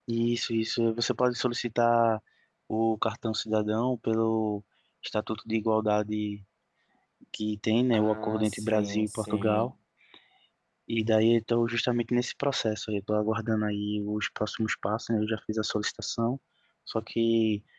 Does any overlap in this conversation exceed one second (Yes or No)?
Yes